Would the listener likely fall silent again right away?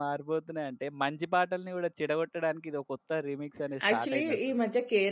No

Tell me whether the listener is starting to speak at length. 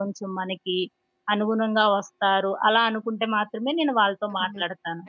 Yes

